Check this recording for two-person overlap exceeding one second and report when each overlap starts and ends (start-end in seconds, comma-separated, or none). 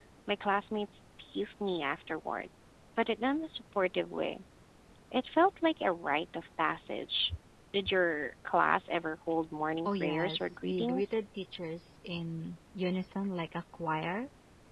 9.8-11.2